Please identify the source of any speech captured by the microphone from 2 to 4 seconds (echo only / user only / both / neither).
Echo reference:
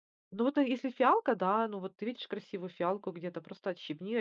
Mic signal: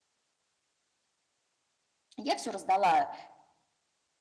user only